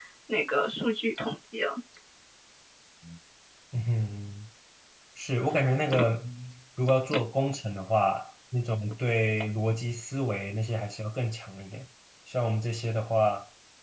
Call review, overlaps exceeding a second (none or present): none